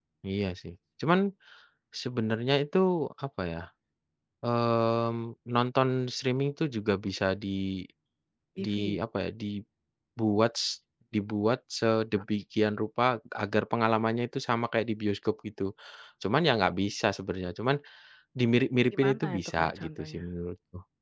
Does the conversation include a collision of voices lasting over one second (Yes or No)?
Yes